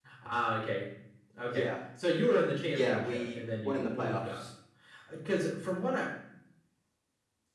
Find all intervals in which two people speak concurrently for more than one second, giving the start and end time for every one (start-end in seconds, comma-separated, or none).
2.7-4.4